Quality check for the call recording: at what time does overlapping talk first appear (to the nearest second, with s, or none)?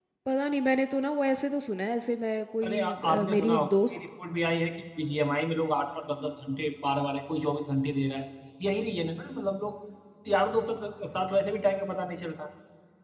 3 s